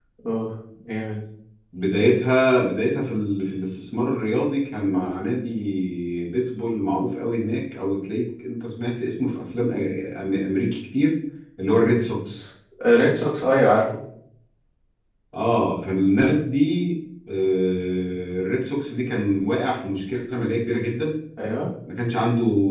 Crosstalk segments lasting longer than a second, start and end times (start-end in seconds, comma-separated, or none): none